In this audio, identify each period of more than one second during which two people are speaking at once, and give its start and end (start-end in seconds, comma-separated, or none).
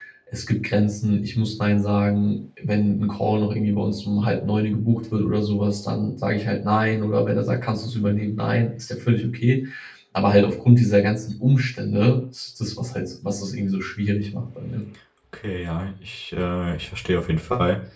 none